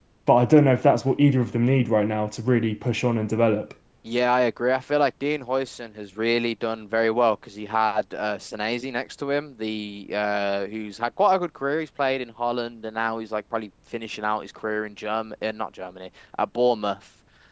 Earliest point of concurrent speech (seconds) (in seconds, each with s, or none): none